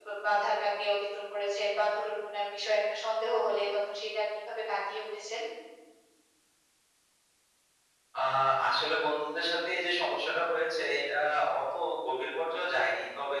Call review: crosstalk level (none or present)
none